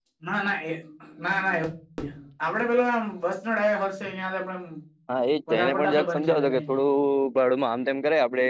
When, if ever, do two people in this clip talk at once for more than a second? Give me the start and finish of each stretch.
5.5-6.8

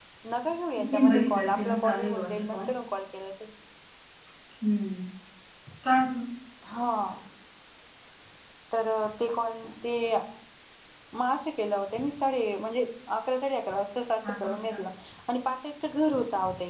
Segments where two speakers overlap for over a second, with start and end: 0.9-2.6

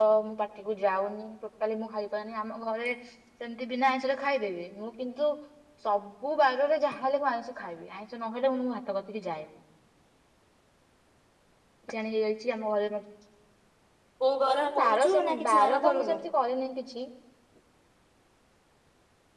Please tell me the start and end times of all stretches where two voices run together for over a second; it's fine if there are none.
14.8-16.2

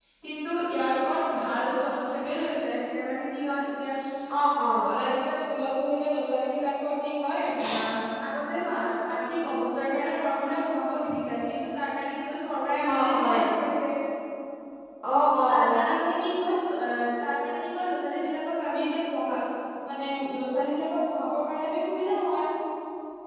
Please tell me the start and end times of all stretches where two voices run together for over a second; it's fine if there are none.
none

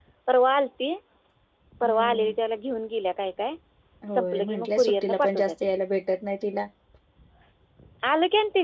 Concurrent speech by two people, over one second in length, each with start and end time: 4.1-5.5

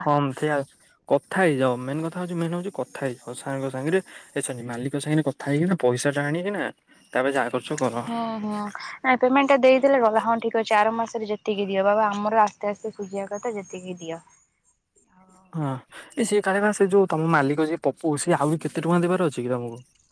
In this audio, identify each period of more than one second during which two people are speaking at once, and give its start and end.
none

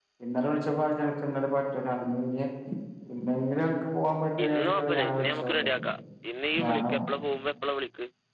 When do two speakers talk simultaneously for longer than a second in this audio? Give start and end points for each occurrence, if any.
4.4-5.8

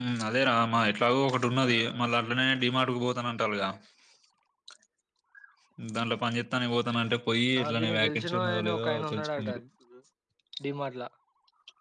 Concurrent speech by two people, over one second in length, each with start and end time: 7.6-9.5

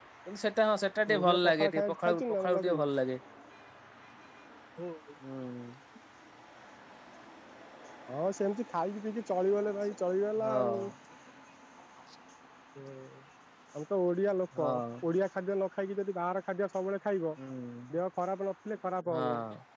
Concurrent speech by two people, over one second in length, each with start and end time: 1.1-2.8

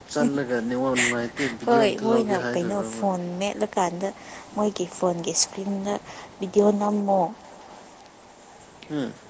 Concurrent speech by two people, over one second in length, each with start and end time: 1.7-3.0

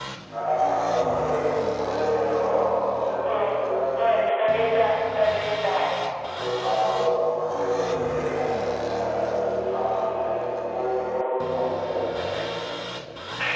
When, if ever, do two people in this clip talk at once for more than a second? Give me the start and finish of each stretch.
none

